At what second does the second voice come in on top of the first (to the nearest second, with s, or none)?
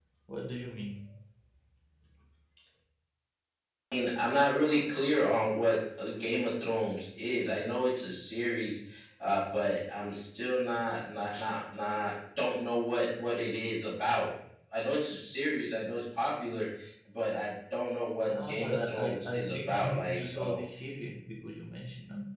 18 s